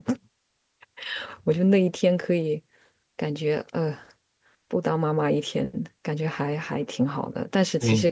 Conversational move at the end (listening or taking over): listening